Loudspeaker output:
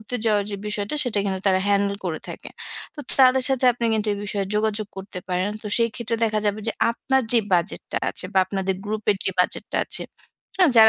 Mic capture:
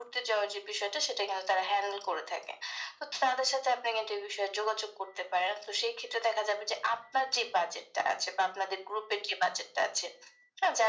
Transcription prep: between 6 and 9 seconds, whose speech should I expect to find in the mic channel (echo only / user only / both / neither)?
echo only